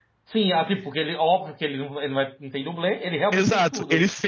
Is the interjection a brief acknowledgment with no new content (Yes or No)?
No